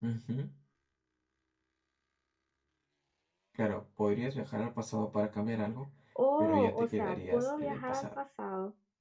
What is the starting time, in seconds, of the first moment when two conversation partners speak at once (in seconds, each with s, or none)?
6.4 s